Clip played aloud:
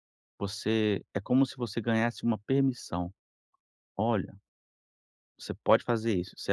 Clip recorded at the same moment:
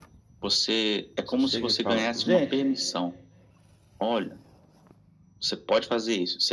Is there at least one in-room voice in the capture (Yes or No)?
Yes